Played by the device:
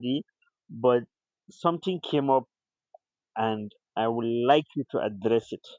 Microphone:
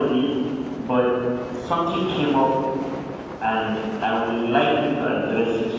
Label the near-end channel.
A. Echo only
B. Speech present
A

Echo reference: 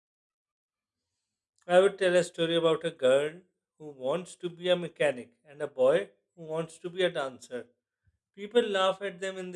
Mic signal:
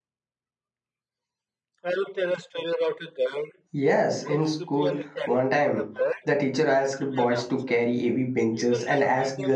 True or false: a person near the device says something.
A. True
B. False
A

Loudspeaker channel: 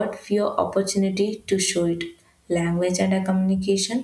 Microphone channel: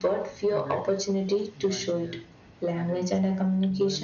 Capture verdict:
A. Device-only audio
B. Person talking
B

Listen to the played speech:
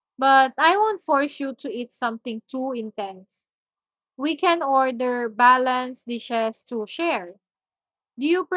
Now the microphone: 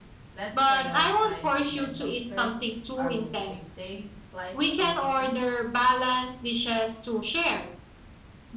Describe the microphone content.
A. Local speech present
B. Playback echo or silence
A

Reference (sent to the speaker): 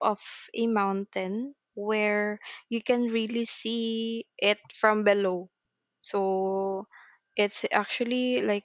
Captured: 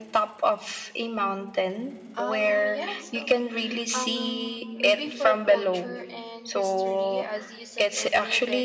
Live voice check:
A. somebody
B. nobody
A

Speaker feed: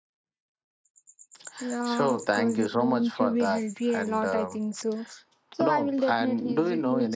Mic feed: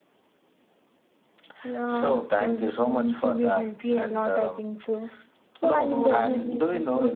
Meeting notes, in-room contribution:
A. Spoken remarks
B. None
A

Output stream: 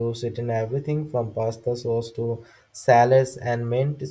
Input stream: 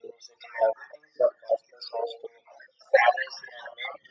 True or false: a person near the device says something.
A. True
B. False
B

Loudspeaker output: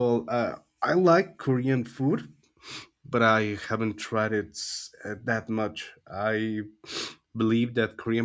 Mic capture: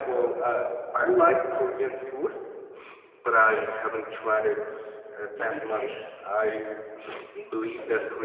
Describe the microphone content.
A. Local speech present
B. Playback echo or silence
A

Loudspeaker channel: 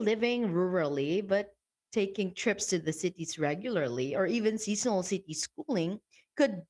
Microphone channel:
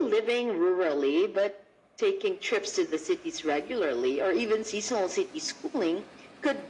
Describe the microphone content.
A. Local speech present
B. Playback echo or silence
B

